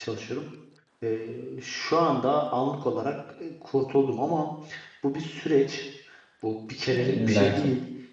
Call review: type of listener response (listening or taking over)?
listening